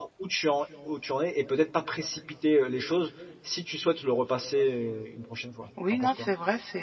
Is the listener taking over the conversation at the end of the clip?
Yes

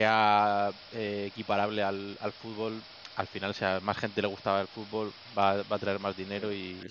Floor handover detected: Yes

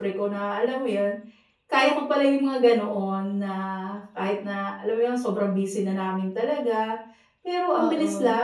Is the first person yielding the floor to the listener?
No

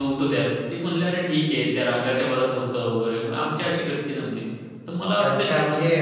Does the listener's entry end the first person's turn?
Yes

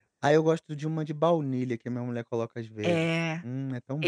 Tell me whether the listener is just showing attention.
No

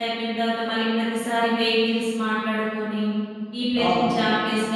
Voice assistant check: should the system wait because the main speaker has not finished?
Yes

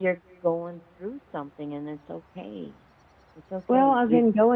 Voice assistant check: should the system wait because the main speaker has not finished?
No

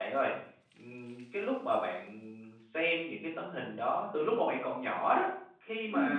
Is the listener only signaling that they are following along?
Yes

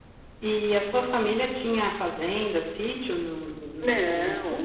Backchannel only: No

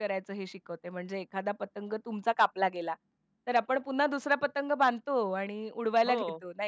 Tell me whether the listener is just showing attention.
Yes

